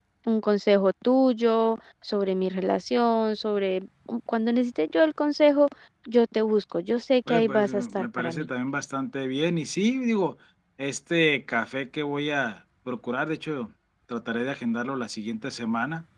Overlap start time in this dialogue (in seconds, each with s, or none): 7.3 s